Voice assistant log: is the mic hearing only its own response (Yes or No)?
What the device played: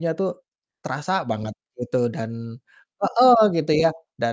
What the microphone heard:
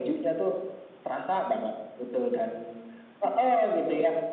Yes